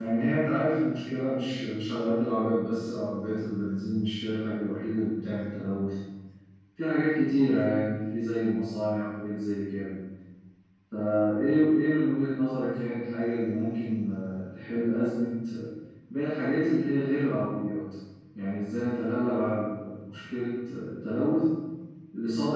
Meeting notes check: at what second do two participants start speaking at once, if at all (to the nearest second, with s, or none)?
none